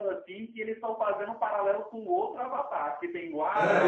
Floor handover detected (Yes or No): Yes